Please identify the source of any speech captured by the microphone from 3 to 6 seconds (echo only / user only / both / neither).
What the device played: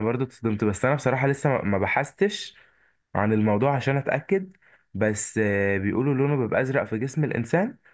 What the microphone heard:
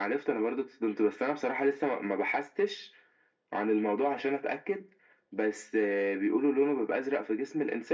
echo only